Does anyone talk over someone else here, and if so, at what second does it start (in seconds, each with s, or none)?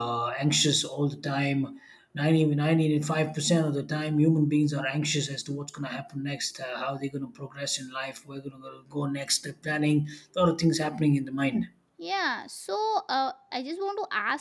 none